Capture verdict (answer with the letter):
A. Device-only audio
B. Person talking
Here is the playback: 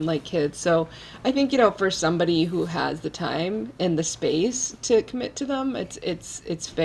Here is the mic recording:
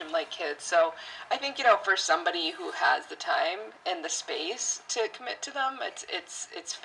A